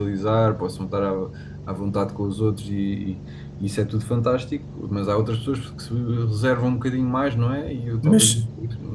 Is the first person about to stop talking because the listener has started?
Yes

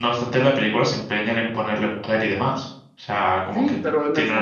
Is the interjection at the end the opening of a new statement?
Yes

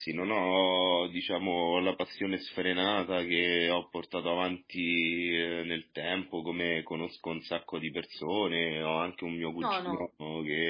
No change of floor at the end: Yes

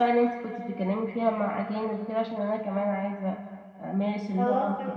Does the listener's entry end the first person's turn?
Yes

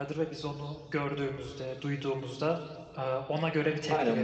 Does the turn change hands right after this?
Yes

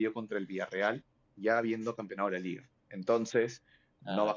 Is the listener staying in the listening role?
Yes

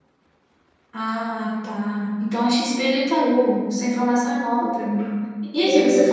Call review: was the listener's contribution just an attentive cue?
Yes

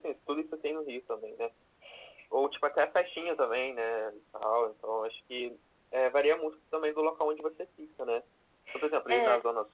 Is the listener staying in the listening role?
Yes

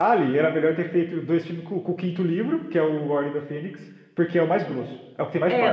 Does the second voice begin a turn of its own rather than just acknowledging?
Yes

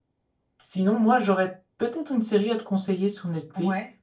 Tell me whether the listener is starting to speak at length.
No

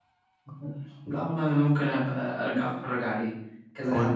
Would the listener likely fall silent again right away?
Yes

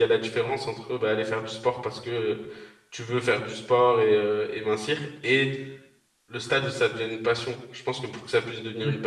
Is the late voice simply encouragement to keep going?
Yes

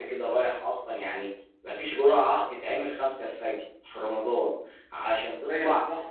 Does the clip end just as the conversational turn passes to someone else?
No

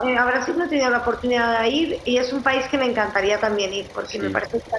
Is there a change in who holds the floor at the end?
No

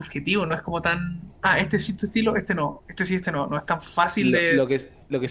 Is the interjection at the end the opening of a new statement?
Yes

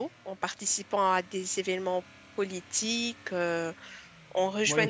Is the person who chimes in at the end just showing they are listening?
No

